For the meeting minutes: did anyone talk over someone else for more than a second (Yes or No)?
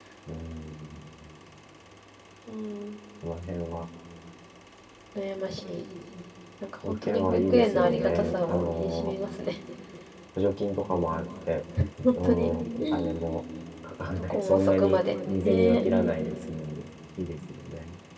Yes